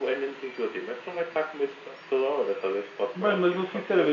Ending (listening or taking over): taking over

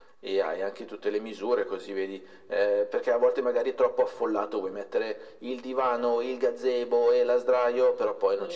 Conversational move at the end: taking over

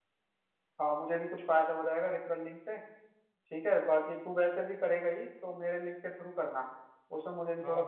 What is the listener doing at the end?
taking over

